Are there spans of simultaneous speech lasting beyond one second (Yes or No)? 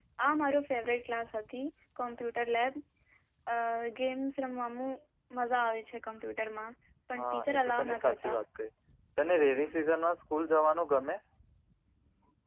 Yes